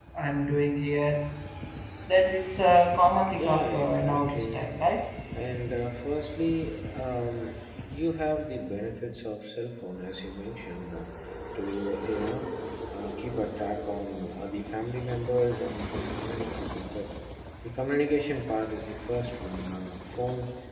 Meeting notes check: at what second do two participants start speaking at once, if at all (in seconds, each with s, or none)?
3.3 s